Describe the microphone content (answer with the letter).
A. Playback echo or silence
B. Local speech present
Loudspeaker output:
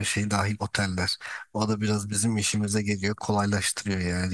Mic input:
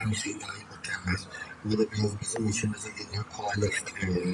A